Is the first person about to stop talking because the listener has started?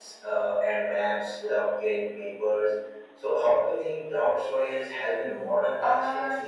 Yes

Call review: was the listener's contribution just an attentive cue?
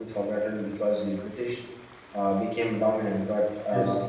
Yes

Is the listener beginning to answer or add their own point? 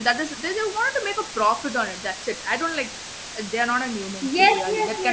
Yes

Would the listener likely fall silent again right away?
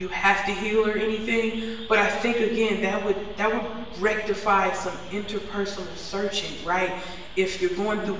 Yes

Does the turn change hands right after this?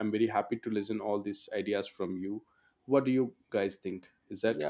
Yes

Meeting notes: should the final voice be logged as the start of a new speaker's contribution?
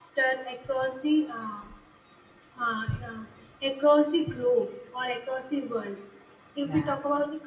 No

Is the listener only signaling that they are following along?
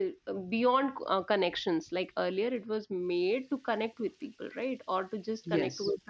Yes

